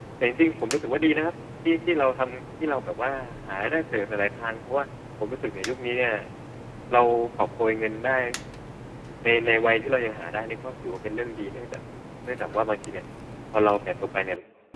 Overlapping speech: No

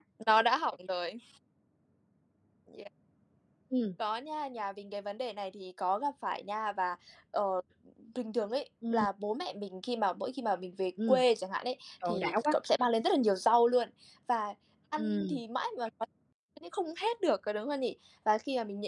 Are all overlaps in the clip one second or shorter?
Yes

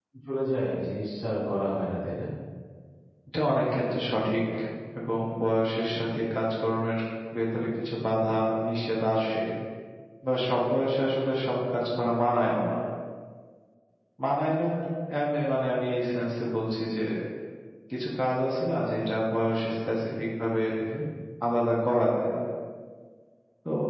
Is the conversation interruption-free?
Yes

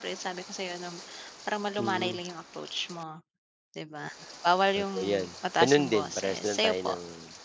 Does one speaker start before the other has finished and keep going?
Yes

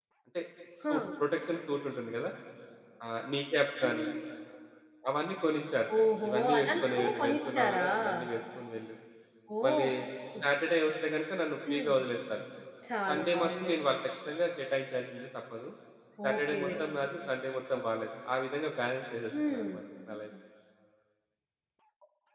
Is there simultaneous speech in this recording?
Yes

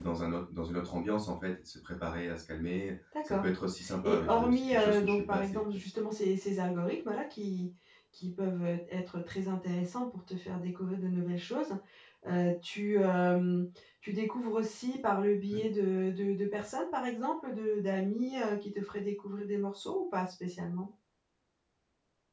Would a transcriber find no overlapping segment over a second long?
No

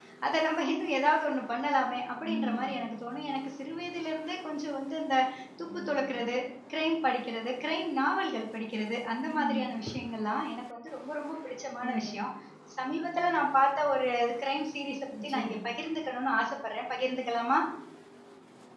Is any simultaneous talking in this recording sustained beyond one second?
No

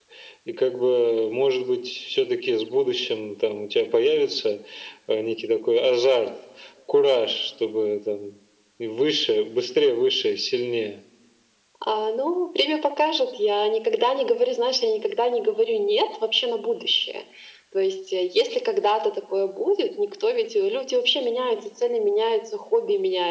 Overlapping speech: No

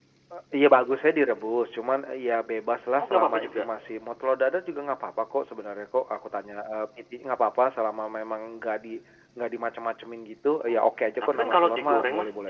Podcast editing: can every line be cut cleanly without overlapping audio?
No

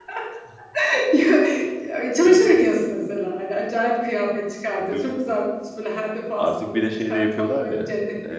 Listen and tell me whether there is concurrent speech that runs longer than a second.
Yes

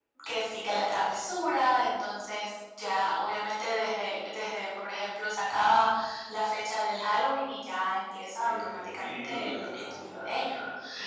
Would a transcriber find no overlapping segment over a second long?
No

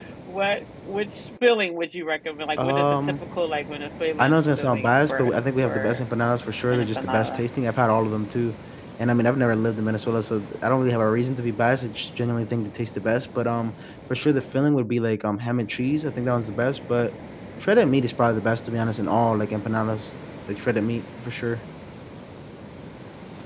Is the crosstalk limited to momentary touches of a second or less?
No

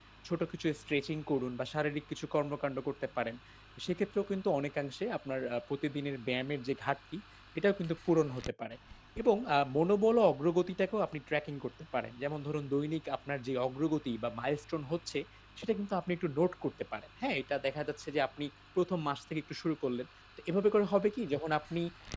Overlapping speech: No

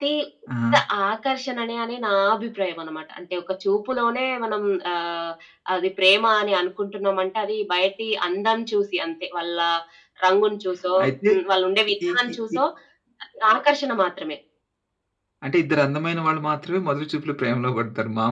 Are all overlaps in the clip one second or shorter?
Yes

